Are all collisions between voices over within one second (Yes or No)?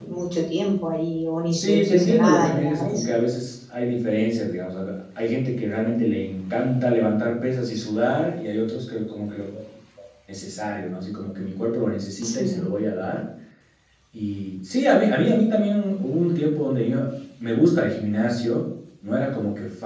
No